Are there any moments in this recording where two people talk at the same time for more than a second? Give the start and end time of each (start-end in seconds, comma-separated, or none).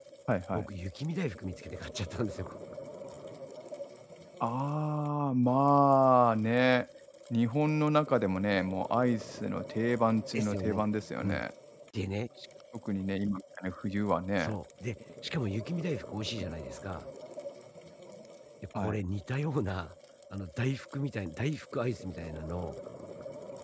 none